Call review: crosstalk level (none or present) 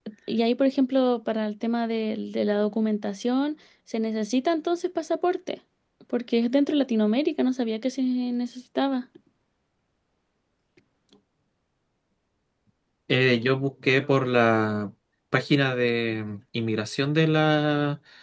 none